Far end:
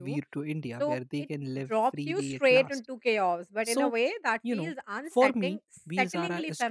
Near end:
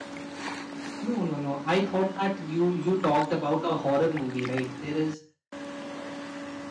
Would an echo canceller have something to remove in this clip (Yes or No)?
No